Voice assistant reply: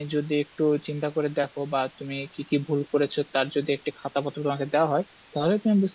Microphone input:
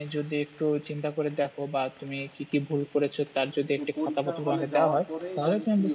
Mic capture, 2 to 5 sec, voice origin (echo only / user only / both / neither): both